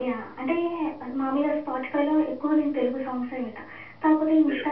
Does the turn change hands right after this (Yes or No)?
No